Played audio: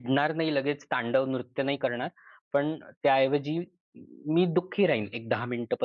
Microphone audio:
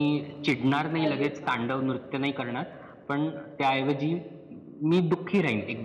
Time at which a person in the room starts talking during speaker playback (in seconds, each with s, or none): 1.0 s